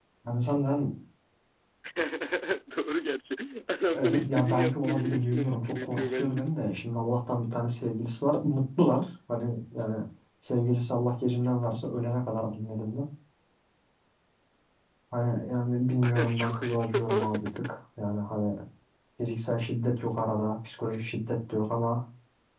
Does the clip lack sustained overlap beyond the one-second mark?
No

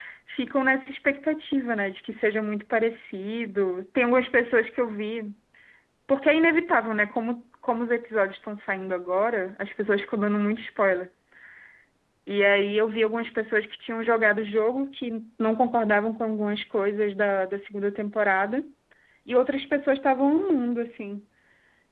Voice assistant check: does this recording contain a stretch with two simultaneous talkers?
No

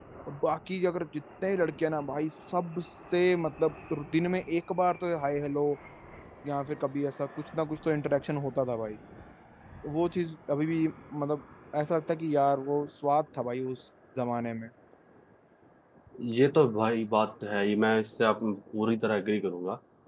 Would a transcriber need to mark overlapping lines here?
No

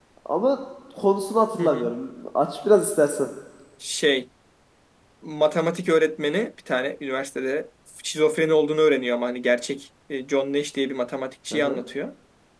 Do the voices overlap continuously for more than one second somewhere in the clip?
No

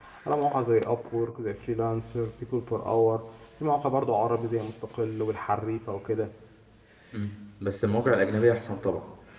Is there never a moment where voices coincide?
Yes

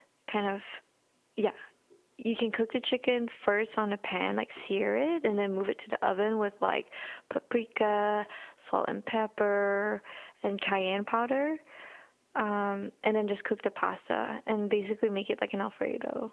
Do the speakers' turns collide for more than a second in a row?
No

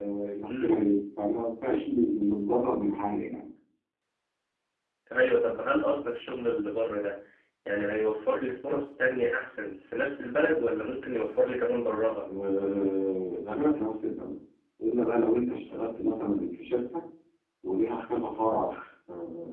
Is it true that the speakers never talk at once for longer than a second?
Yes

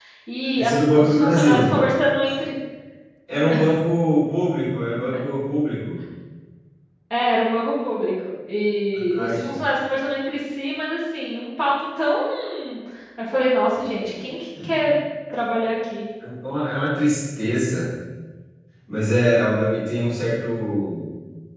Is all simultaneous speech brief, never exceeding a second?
No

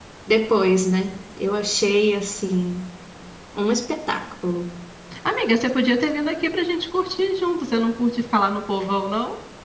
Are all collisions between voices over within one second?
Yes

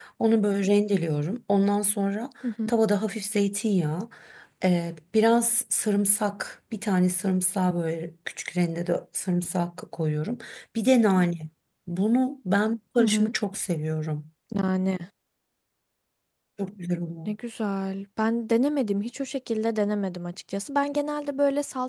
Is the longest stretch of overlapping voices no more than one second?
Yes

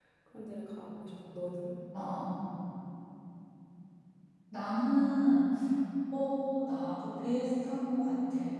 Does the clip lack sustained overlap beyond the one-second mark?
Yes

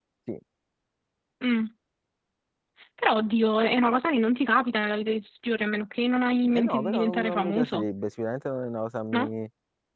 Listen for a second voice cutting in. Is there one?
Yes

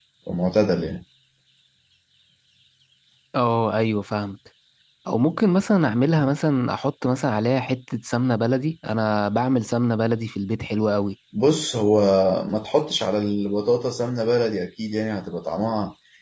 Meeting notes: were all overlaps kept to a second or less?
Yes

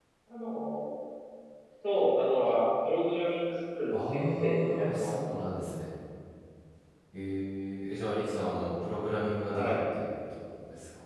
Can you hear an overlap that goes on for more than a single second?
Yes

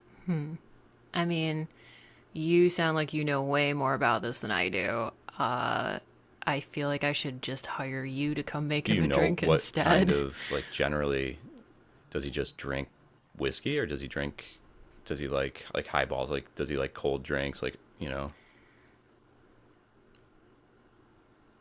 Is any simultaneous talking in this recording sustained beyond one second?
Yes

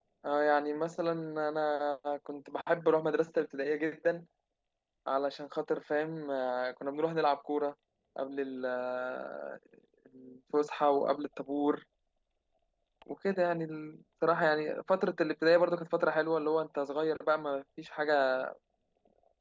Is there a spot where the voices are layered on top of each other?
No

